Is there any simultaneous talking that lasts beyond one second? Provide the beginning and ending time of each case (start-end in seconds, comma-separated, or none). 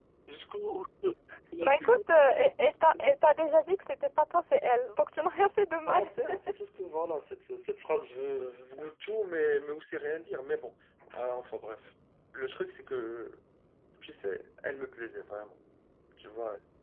none